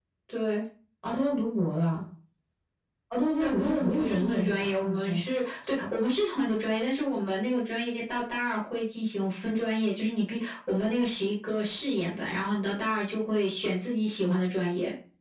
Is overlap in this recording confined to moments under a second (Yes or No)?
No